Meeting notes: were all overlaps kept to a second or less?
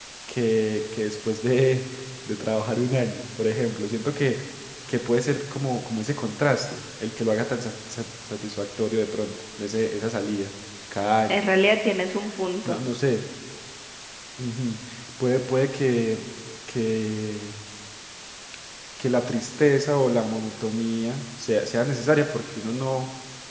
Yes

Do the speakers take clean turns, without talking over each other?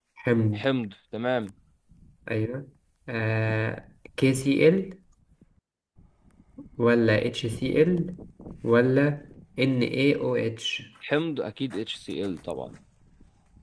Yes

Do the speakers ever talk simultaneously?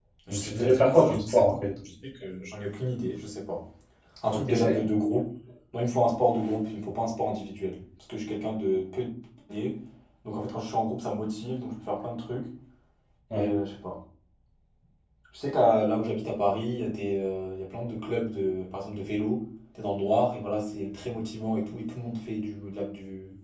Yes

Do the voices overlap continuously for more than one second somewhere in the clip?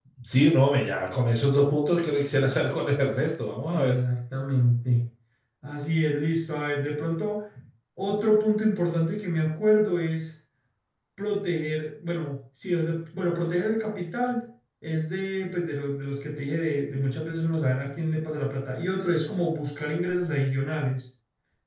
No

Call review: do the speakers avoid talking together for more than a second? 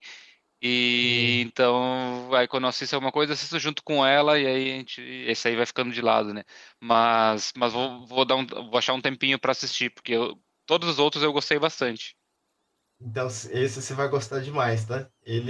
Yes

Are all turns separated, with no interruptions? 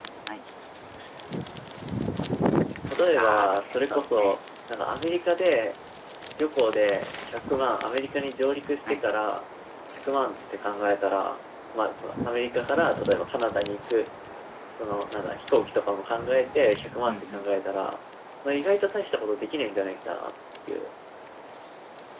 No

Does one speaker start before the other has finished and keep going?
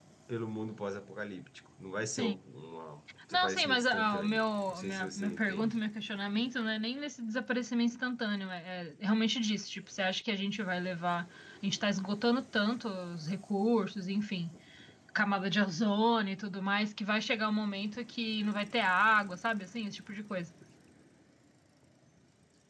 Yes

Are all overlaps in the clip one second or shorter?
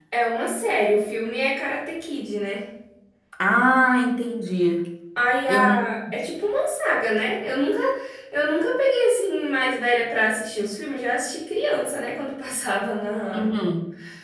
Yes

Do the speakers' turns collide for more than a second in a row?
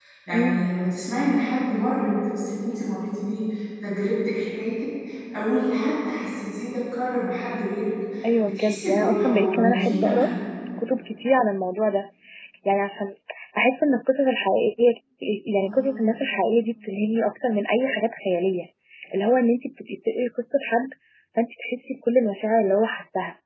Yes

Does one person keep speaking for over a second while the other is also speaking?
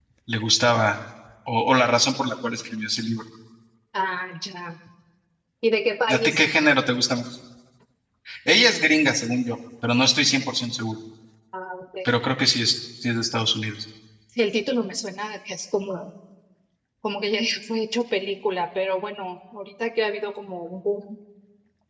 No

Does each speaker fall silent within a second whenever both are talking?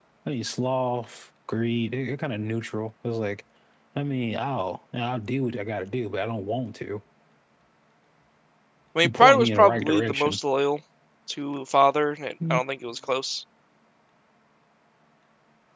No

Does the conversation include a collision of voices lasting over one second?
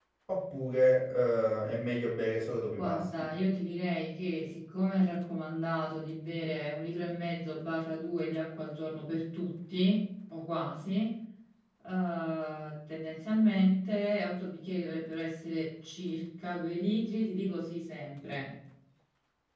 No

